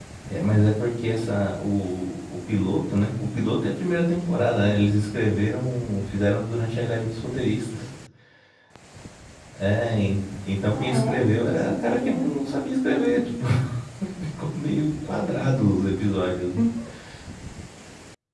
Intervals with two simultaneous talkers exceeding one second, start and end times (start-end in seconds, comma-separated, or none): 10.7-12.2